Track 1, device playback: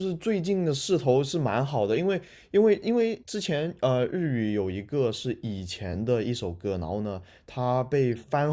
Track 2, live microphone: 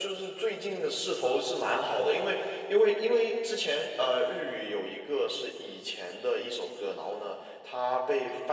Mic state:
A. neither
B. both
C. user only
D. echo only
D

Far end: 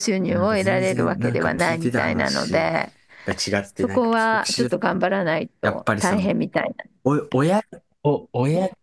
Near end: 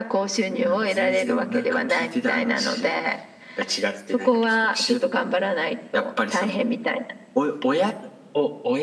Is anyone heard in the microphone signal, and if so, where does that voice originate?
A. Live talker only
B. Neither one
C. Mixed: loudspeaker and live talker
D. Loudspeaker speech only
D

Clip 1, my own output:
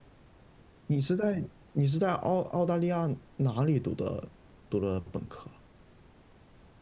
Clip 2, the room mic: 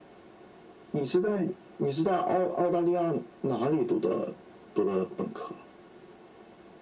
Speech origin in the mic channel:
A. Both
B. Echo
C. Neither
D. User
B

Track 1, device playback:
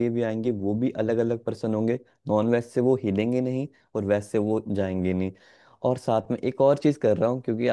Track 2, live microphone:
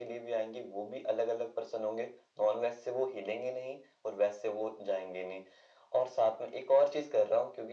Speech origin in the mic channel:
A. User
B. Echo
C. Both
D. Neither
B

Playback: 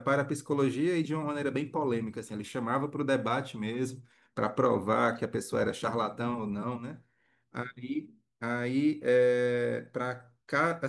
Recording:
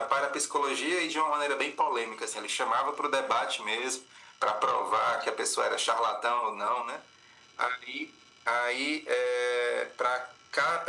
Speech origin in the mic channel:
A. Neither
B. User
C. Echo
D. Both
C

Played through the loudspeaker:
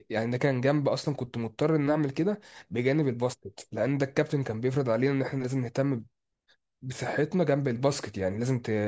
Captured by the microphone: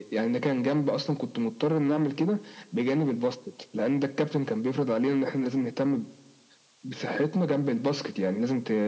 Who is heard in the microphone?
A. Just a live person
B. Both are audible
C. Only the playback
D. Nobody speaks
C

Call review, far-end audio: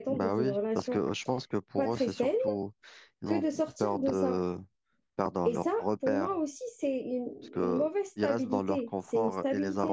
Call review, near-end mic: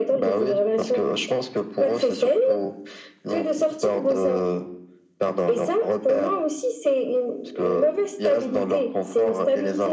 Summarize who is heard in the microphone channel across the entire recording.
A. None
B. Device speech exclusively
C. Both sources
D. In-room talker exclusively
B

